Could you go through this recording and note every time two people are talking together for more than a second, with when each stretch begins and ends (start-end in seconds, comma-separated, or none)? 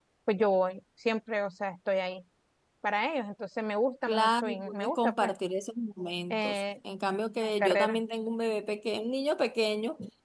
4.1-5.3